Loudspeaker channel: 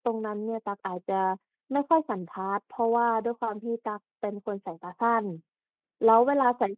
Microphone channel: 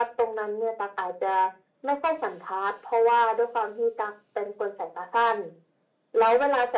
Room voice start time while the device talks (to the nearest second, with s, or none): none